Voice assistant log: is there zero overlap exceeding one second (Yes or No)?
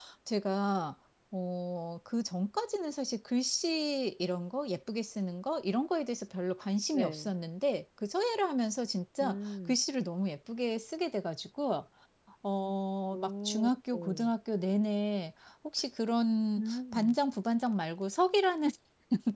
Yes